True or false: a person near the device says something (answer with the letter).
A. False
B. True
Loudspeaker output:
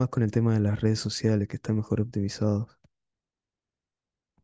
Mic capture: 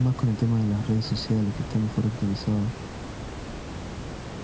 A